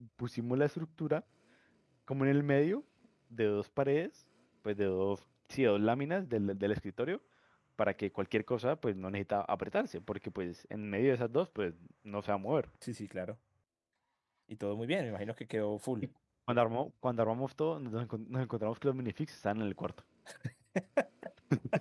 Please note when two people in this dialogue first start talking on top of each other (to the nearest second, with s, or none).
none